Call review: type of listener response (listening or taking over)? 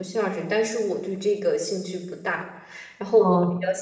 listening